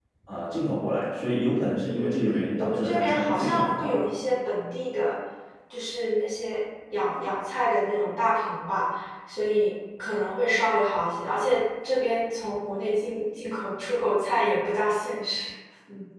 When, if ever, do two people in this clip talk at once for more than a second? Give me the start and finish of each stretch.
1.8-4.0

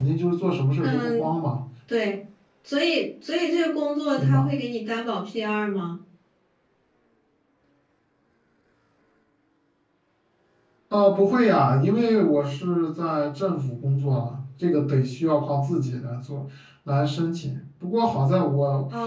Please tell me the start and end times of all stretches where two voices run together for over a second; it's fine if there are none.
none

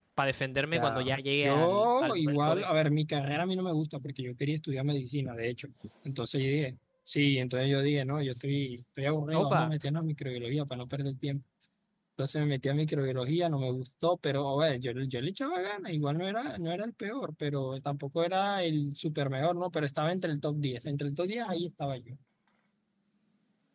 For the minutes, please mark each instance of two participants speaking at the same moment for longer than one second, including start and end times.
1.4-2.7

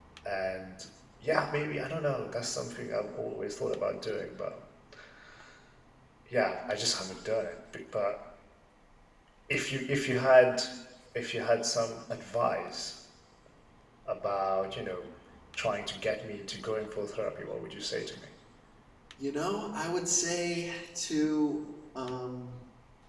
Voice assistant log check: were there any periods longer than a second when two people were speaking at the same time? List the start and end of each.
none

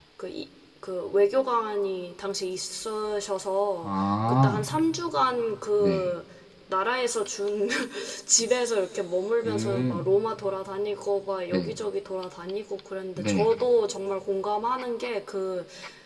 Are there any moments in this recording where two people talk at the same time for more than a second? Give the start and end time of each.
none

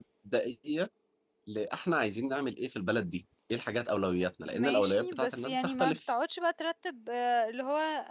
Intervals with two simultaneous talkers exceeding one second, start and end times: 4.5-6.0

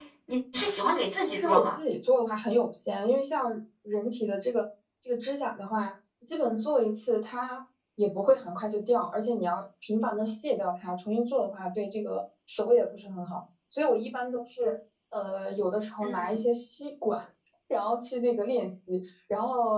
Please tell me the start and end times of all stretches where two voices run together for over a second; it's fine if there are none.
none

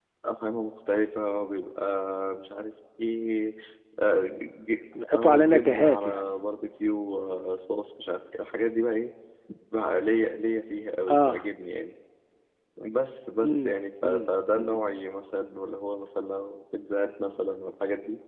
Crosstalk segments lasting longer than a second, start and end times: 5.0-6.3, 13.4-14.8

